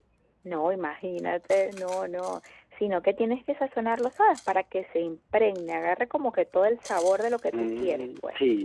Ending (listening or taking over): taking over